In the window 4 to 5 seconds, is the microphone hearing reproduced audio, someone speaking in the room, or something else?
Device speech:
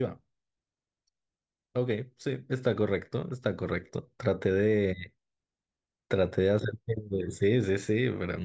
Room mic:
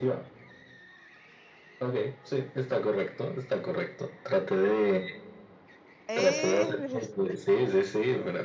echo only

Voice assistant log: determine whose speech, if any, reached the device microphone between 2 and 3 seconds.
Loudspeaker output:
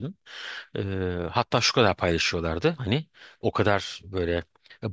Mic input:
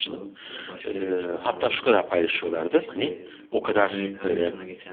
both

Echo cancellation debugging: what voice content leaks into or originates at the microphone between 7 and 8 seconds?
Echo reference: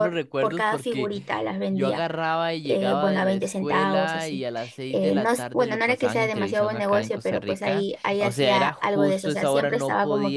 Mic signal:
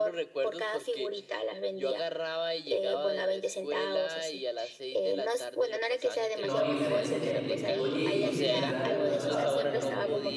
both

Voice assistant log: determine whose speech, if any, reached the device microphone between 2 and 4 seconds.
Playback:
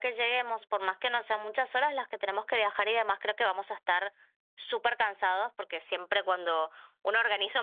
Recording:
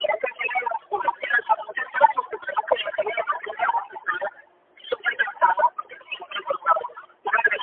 echo only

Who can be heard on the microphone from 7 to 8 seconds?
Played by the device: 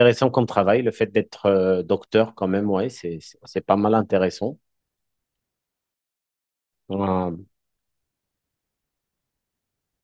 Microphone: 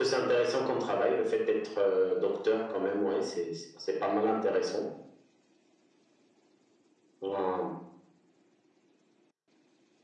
echo only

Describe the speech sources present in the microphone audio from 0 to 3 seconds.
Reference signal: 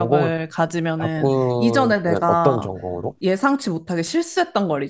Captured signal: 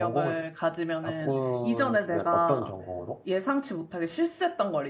echo only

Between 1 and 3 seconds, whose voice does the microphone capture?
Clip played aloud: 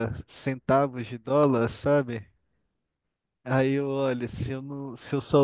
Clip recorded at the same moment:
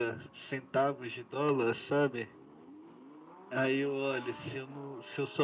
echo only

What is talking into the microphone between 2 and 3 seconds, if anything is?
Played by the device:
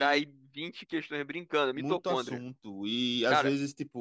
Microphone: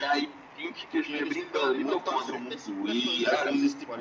both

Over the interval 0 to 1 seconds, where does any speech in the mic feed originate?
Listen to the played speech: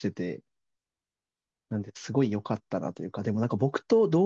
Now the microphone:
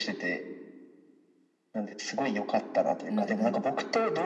echo only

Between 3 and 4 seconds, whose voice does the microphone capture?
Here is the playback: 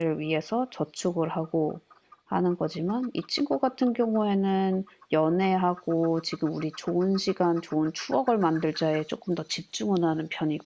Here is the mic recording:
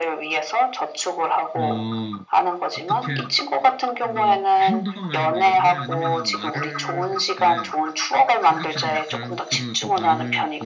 both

